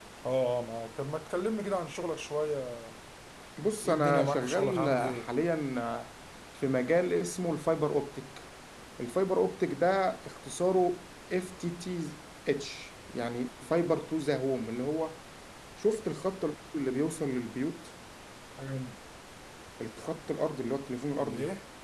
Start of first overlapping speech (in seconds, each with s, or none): 3.8 s